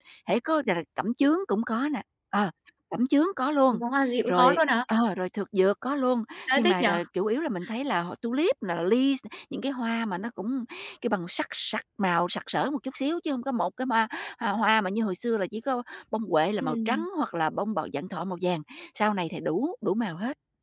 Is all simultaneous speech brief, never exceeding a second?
Yes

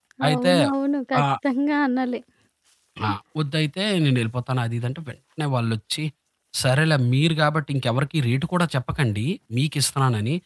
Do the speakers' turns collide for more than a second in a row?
No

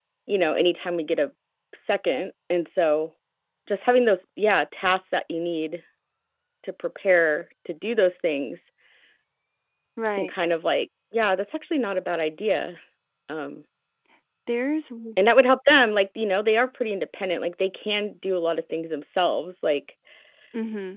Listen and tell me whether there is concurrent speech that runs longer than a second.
No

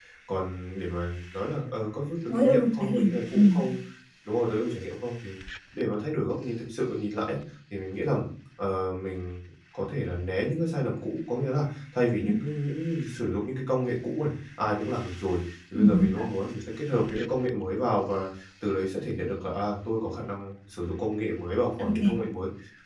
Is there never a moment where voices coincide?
No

